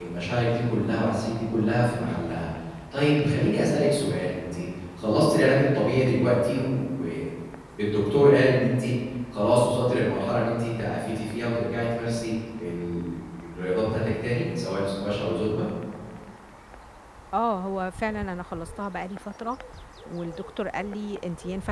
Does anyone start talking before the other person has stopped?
No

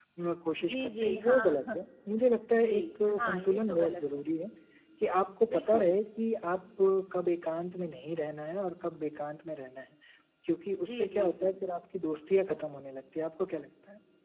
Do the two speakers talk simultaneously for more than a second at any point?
Yes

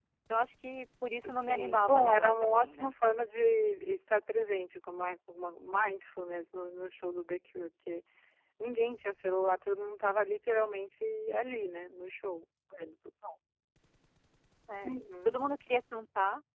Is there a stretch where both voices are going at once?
Yes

